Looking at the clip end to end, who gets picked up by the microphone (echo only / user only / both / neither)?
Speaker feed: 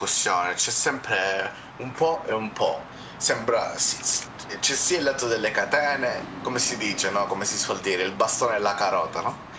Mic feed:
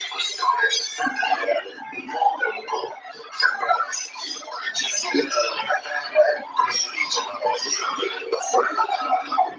echo only